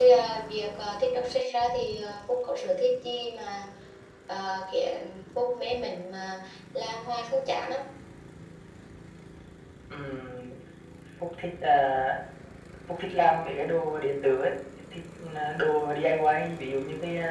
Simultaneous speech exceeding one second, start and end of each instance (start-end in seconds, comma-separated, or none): none